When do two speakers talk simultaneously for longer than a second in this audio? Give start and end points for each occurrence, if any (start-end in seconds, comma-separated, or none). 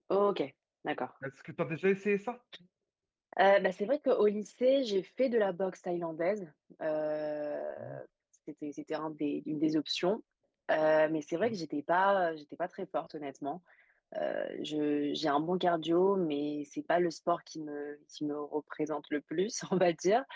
none